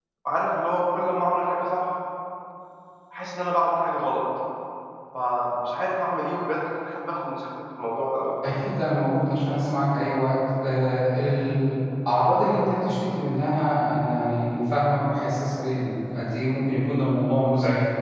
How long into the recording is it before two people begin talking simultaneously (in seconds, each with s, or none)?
none